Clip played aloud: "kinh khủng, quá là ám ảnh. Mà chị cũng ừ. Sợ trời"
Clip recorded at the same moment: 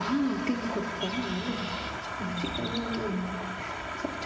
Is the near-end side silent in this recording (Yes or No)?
Yes